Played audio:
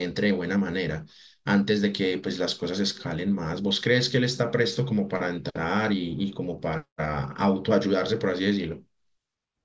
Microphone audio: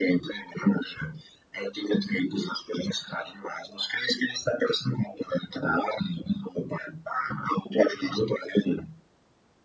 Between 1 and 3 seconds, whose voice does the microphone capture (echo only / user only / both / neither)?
echo only